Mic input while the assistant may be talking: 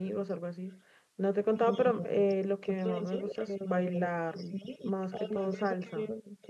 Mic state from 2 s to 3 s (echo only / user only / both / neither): both